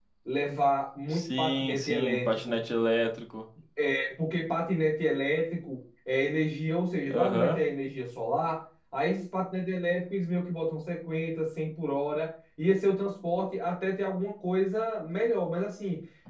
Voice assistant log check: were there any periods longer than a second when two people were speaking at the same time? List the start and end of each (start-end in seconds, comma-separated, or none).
1.1-2.6